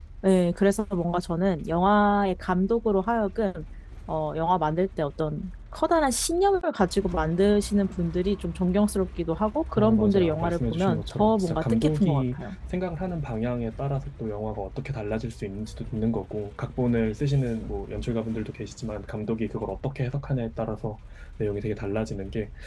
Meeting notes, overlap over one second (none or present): present